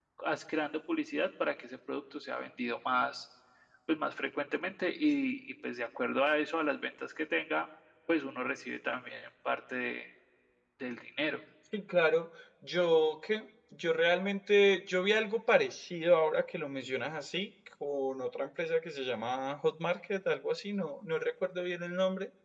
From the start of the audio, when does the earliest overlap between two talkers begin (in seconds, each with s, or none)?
none